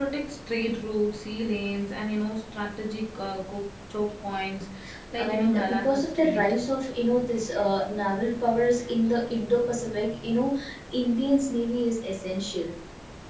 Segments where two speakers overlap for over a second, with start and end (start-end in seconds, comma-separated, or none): 5.1-6.4